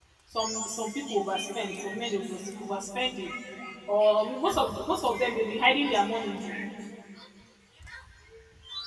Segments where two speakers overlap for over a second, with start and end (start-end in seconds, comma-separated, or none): none